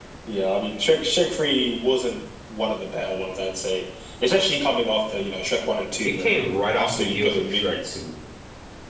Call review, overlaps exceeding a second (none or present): present